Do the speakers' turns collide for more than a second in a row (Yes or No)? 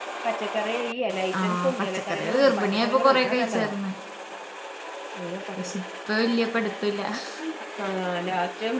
Yes